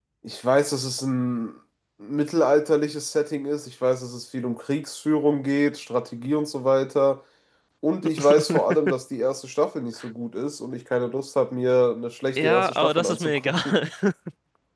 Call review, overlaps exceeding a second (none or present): present